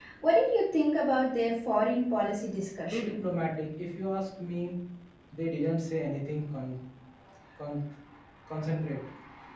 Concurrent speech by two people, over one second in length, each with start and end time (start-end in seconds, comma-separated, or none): none